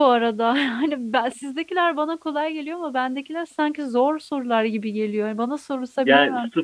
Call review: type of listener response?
taking over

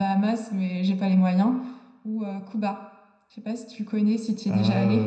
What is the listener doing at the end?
taking over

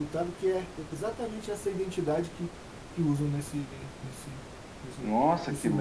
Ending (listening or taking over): taking over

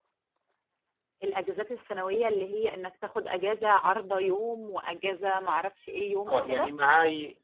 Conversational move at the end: taking over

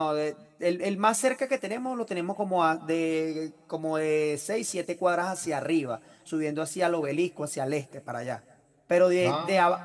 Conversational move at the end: listening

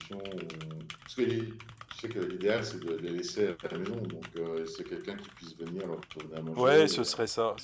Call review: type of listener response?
taking over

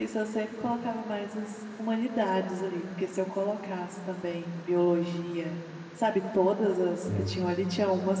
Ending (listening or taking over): listening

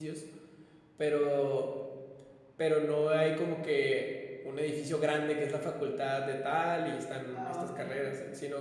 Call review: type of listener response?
listening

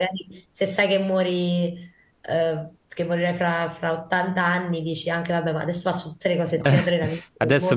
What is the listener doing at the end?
taking over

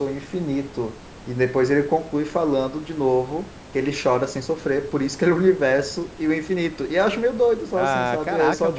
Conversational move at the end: taking over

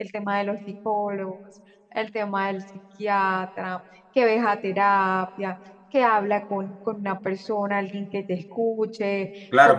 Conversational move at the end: taking over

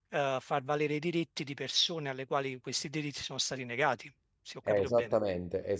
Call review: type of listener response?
taking over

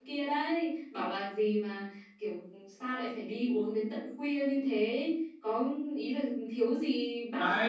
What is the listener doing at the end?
taking over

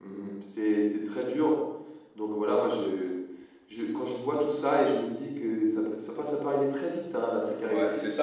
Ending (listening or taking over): taking over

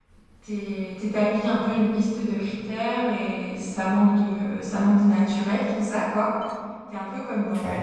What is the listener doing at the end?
listening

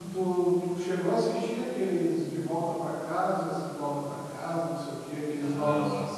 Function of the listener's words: taking over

